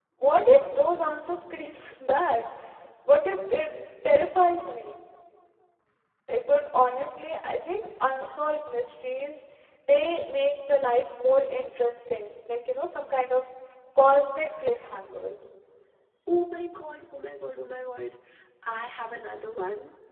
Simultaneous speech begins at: none

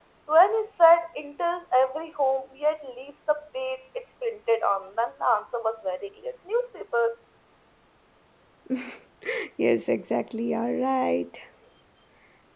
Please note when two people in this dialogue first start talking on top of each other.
none

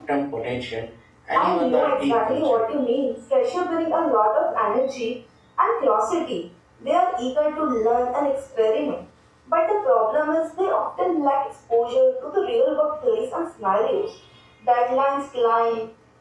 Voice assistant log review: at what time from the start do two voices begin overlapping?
1.4 s

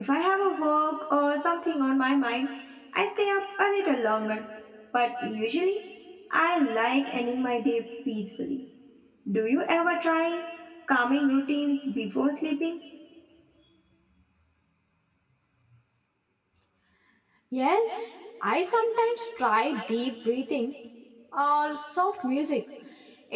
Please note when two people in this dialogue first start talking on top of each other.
none

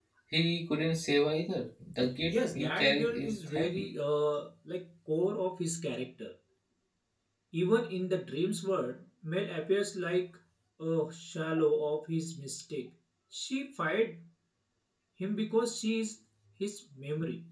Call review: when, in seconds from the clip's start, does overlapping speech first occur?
2.3 s

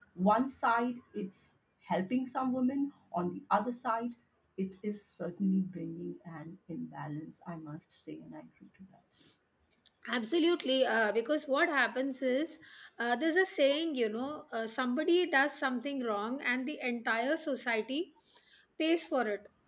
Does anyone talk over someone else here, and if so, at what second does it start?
none

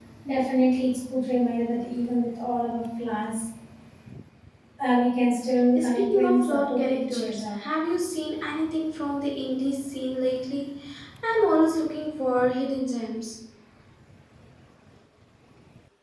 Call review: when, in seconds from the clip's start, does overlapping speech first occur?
5.7 s

